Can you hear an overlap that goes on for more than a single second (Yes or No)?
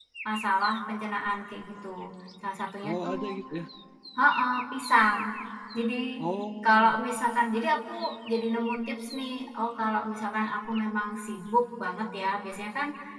No